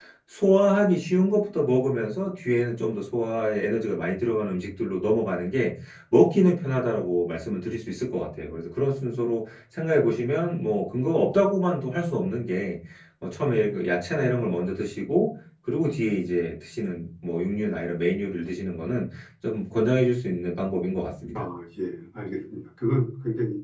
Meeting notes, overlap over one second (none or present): none